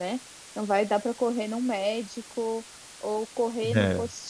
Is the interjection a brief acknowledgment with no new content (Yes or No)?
Yes